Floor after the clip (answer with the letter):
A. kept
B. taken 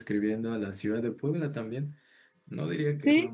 A